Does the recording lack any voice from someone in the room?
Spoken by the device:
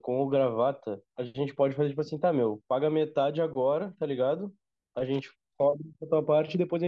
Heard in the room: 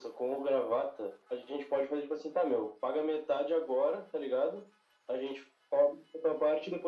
Yes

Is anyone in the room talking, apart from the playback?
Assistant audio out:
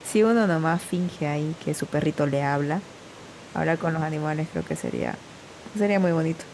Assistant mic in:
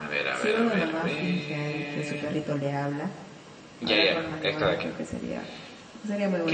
Yes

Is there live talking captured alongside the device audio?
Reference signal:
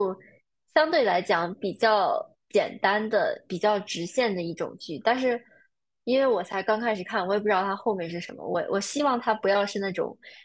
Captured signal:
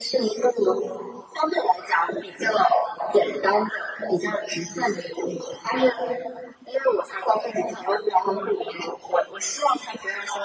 No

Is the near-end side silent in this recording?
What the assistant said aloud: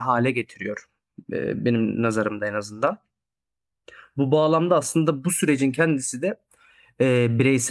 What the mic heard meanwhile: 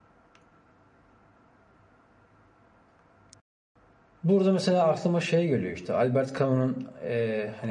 No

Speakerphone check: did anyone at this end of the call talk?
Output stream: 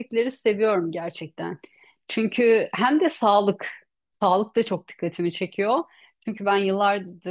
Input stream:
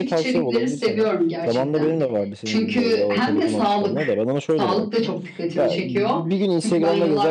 Yes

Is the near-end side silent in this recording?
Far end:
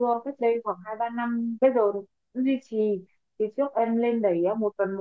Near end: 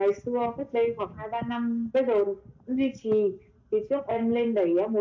Yes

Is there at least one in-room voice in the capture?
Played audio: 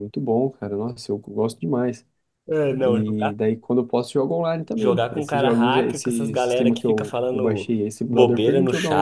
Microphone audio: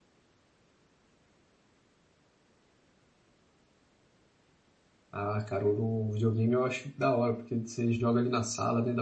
Yes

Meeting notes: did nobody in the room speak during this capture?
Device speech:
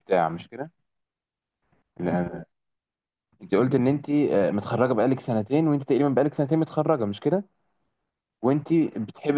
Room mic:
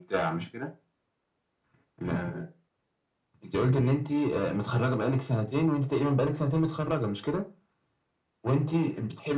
Yes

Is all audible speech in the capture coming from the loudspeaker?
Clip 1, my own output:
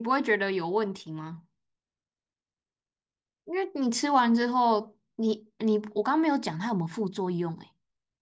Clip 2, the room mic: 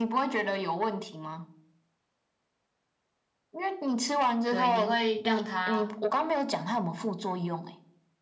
No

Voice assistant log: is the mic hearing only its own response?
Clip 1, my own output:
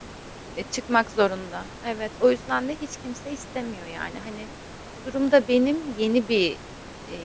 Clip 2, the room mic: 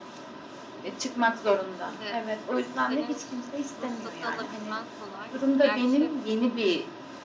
No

